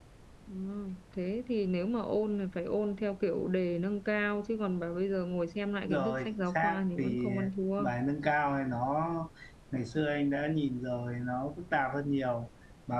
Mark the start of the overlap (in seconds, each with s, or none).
5.9 s